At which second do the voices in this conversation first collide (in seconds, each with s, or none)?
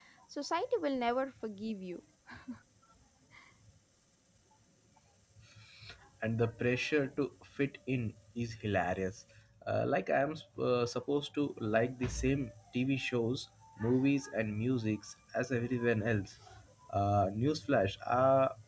none